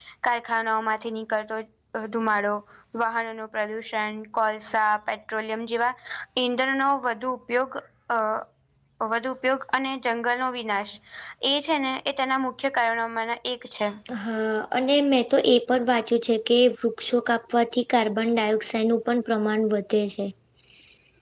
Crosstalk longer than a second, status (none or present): none